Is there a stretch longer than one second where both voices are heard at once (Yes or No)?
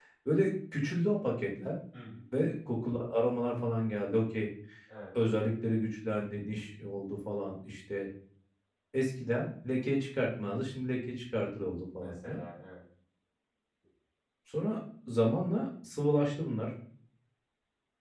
No